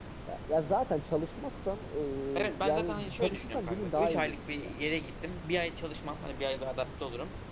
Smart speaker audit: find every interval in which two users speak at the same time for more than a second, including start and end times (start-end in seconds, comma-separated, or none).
2.6-4.8